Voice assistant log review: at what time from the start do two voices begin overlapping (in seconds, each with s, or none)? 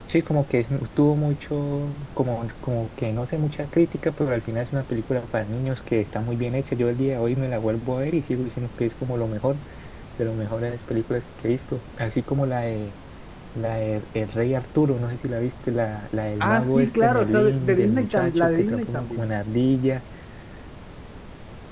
16.4 s